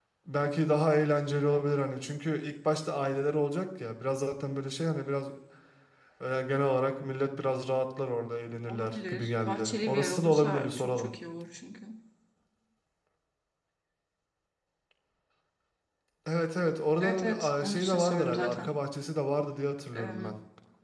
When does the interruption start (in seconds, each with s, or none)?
8.7 s